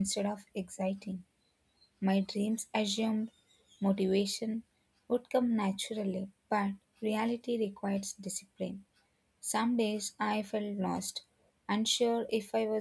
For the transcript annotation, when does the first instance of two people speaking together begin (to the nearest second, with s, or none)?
none